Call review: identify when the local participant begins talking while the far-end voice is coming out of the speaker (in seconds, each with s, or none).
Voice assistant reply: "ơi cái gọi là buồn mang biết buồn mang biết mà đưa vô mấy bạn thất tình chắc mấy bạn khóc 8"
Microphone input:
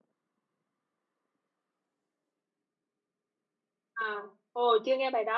3.9 s